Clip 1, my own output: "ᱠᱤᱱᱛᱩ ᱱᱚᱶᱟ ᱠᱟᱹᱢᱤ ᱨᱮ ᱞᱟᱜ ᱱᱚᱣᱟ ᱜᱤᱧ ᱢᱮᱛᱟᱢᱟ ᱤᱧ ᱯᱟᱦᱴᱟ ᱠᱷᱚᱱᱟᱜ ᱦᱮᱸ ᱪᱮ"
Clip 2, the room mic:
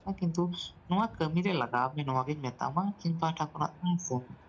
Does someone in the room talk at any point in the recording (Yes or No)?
No